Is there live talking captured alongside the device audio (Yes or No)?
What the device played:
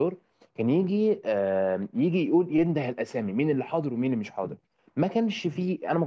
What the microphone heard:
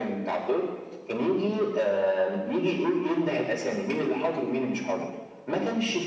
No